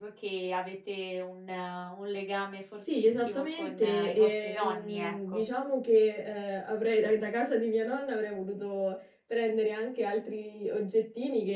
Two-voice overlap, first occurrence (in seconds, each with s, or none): 2.8 s